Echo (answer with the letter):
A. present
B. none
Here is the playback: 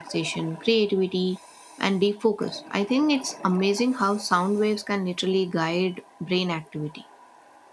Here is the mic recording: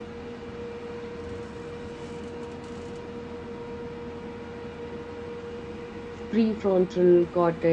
B